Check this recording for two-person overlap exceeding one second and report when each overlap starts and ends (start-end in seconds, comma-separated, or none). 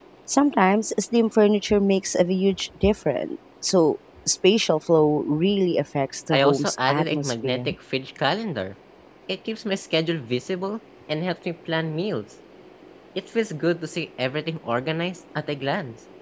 6.3-7.7